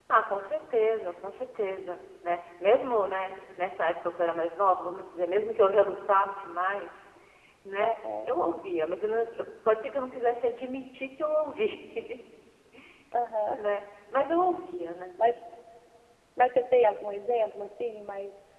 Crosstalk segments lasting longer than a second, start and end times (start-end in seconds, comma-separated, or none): none